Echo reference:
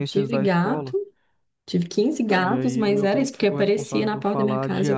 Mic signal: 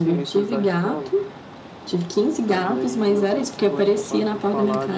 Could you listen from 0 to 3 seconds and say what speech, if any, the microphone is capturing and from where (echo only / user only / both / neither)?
echo only